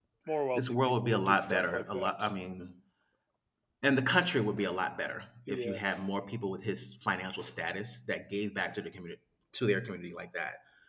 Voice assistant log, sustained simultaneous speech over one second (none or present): present